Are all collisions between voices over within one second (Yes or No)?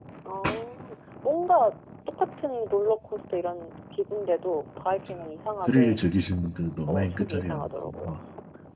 No